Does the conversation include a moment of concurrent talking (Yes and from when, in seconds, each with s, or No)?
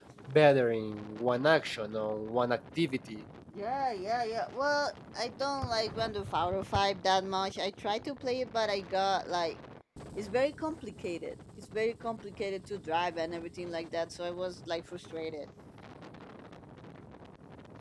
No